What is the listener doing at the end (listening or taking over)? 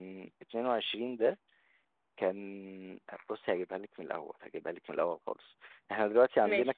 listening